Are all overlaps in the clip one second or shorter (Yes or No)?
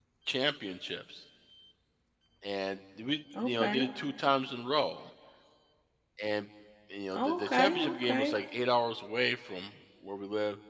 No